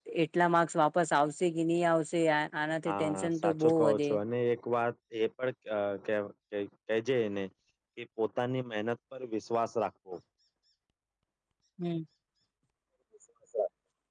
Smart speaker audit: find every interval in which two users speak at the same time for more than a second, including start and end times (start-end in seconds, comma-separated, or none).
2.8-4.1